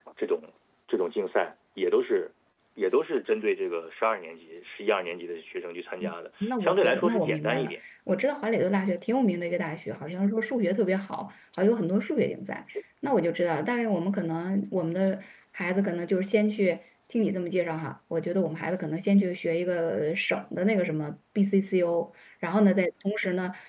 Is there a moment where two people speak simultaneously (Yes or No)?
Yes